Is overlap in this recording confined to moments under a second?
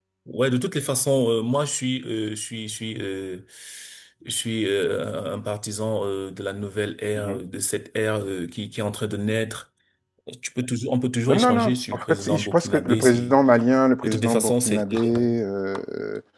No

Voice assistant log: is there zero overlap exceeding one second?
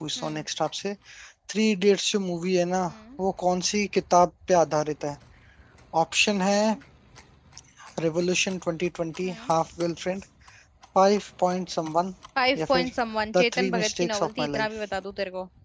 No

